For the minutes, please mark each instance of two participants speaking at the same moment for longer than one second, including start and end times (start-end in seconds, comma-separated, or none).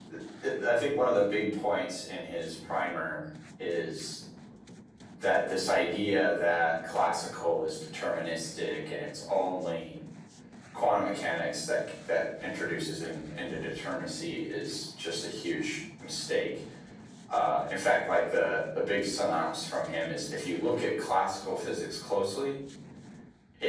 none